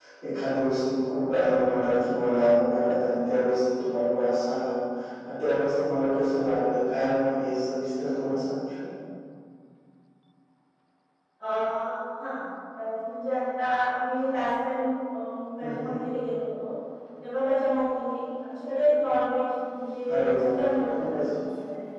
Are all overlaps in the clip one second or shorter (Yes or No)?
Yes